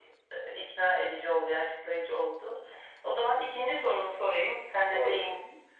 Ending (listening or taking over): listening